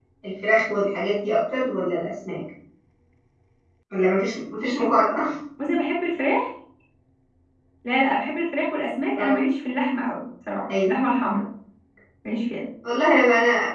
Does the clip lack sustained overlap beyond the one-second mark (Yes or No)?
Yes